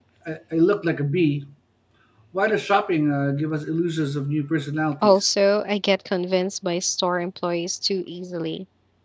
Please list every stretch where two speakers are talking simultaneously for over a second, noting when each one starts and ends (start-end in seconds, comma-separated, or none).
none